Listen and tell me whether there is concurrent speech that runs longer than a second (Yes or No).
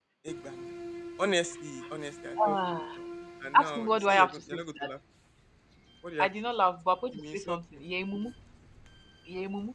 Yes